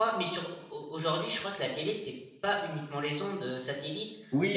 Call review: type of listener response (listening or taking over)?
taking over